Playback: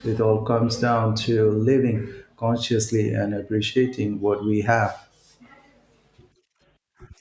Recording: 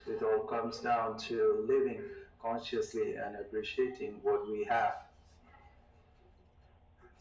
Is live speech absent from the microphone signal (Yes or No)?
Yes